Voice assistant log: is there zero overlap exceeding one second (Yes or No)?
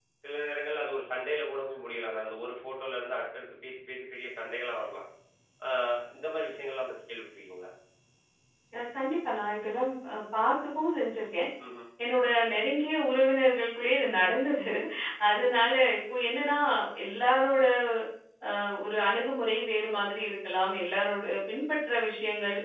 Yes